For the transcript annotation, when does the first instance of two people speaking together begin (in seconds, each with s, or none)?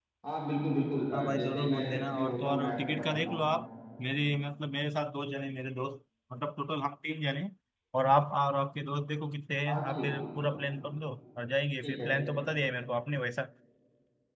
1.1 s